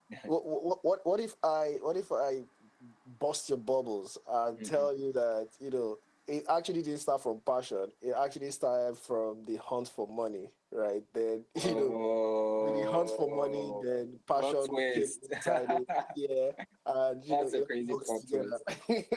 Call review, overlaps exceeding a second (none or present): present